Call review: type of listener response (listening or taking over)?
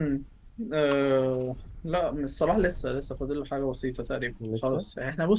listening